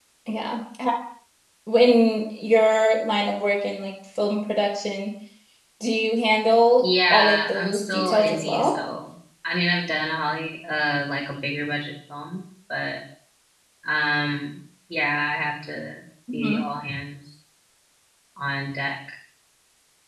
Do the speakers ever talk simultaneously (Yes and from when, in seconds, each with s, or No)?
Yes, from 6.8 s